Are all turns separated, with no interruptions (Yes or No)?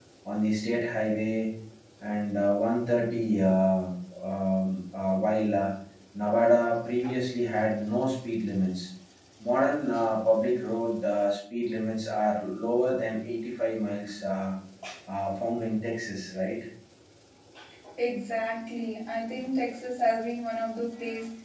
Yes